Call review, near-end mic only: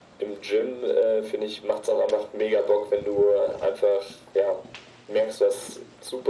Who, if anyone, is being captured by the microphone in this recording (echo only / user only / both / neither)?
echo only